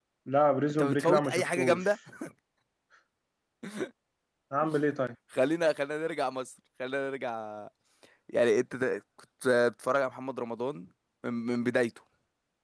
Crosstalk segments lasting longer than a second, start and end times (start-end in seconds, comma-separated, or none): 0.7-1.9